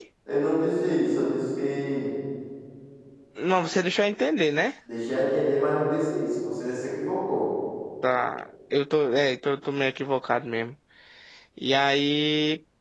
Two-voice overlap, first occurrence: none

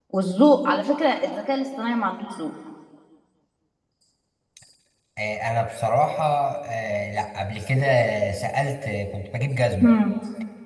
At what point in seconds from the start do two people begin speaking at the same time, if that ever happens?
none

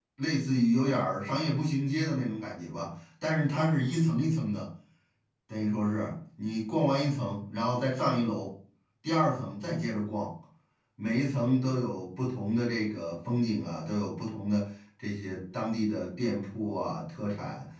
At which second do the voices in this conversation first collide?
none

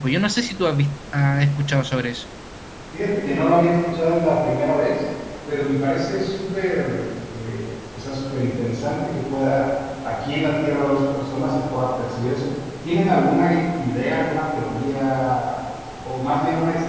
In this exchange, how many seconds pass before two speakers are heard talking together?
none

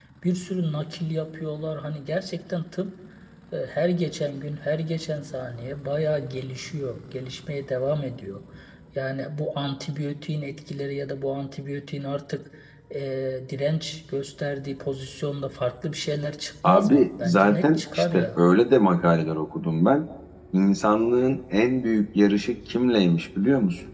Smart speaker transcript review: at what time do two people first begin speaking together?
17 s

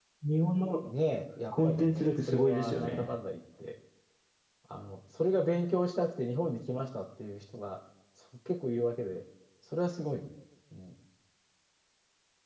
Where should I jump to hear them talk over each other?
2 s

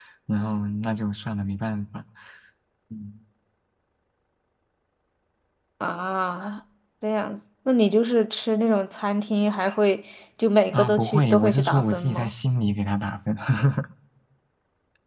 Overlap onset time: 11 s

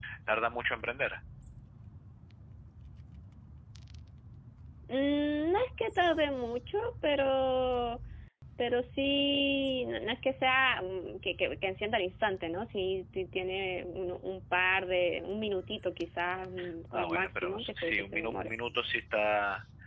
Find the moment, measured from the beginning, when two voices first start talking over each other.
17 s

